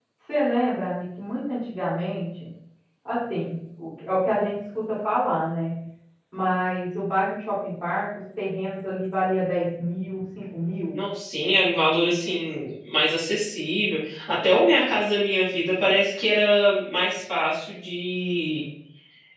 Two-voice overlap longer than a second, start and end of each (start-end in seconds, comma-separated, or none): none